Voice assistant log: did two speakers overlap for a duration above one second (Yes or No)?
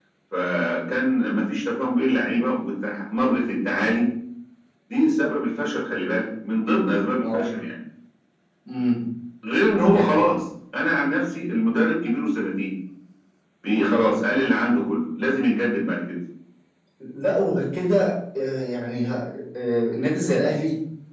No